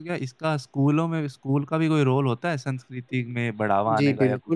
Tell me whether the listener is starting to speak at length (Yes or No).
Yes